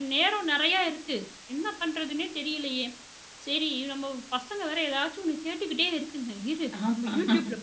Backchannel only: Yes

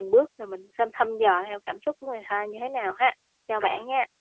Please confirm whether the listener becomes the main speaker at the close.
Yes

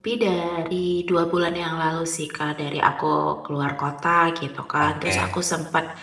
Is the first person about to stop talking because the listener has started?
No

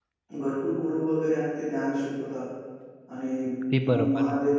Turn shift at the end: No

